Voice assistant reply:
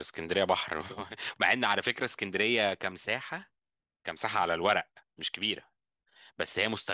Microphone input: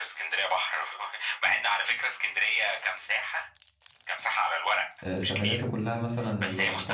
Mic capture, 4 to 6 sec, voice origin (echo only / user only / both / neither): both